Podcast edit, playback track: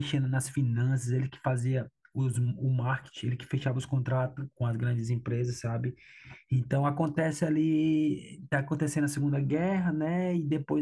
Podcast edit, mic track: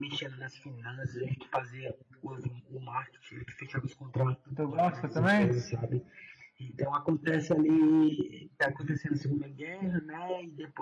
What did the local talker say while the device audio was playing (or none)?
Tu gosta também?